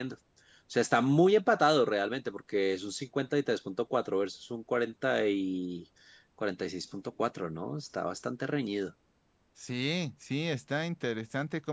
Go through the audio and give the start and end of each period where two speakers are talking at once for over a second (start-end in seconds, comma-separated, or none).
none